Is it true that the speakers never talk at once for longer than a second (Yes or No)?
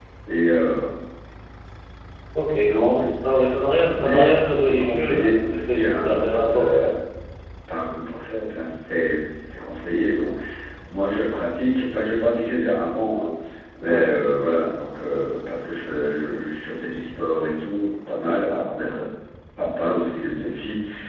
No